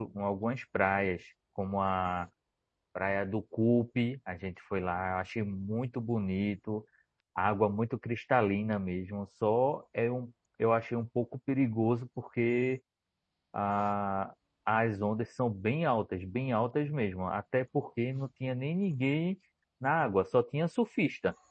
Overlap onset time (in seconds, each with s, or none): none